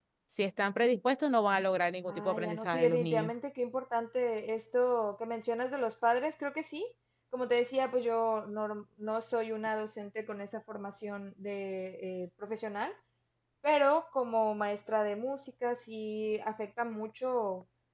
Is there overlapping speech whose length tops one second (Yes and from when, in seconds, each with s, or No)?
Yes, from 2.1 s